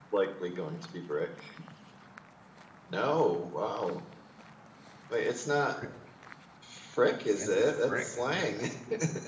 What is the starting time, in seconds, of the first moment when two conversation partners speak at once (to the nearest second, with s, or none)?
7 s